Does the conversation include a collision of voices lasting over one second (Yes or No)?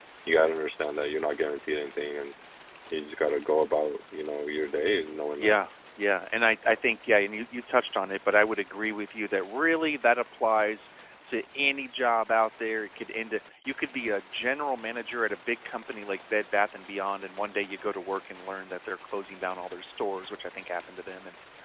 No